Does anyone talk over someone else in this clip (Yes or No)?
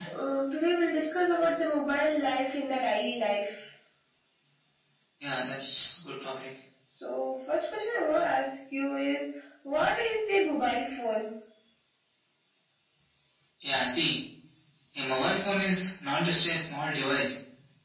No